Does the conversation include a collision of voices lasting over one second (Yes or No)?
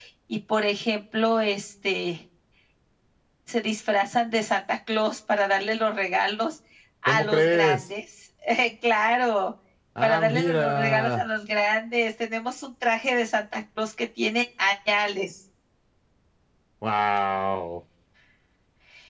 Yes